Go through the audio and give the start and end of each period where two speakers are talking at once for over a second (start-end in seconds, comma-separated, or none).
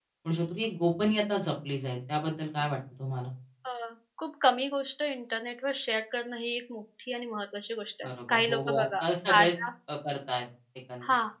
8.1-9.5